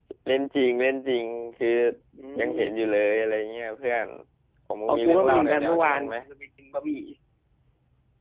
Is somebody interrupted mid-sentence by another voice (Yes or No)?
Yes